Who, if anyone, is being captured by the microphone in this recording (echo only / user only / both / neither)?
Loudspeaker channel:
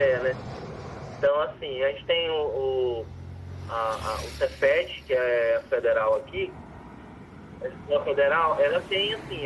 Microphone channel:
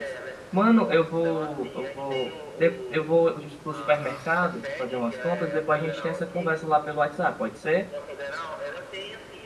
both